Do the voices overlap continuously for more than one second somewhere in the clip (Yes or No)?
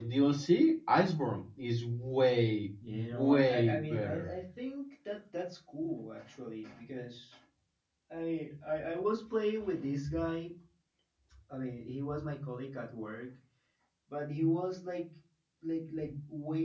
Yes